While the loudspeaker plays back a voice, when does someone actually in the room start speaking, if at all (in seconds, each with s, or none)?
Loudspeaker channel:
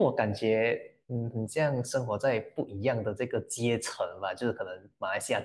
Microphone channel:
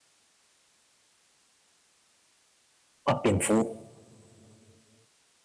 3.0 s